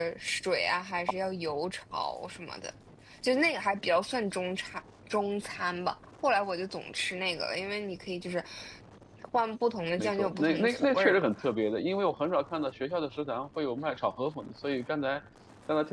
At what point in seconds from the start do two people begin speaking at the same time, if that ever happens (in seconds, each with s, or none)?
10.0 s